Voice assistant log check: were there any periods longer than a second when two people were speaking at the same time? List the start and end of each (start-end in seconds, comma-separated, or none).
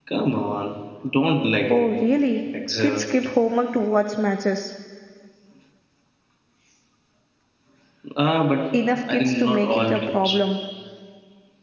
9.1-10.4